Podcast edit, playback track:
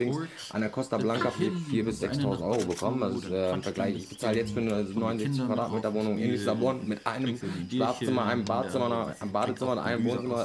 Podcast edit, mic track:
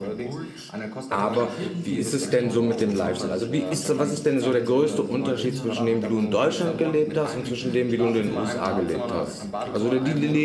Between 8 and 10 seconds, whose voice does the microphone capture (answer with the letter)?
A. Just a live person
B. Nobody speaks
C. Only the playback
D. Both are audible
D